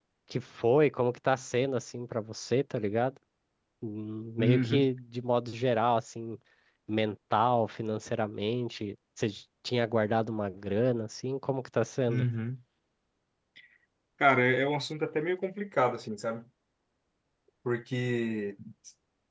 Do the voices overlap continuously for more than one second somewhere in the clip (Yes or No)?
No